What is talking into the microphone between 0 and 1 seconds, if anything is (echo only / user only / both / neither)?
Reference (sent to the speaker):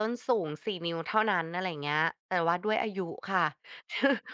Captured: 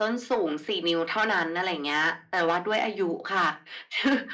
echo only